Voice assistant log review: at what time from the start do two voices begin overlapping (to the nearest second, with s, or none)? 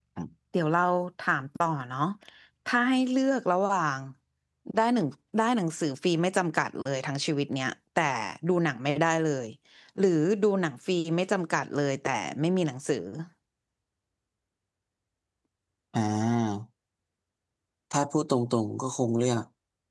none